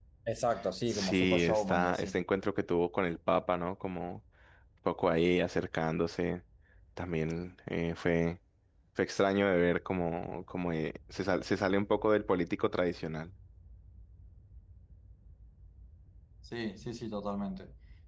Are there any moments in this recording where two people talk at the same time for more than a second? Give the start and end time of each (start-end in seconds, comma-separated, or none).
0.9-2.2